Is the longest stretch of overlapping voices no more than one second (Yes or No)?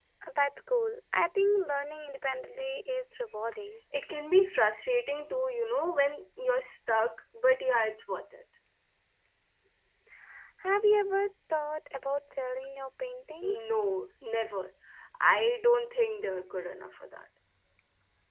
Yes